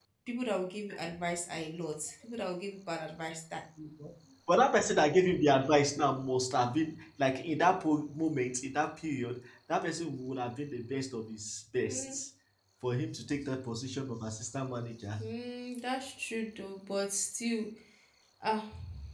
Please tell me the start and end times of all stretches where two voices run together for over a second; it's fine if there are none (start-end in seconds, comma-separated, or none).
none